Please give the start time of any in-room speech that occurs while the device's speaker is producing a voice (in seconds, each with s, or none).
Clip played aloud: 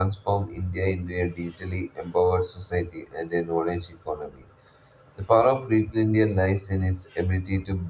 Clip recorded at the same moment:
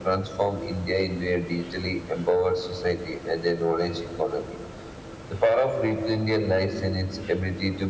none